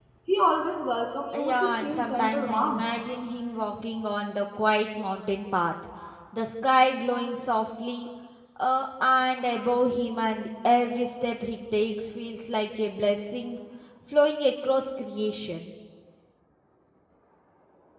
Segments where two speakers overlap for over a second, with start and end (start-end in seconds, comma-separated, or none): 1.3-2.8